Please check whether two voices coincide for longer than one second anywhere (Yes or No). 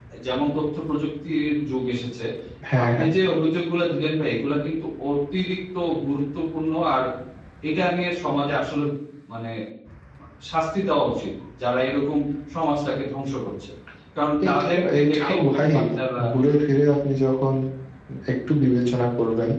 Yes